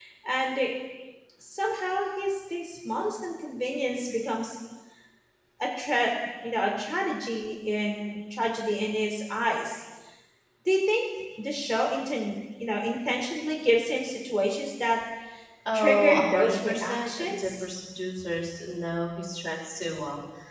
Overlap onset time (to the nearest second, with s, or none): 16 s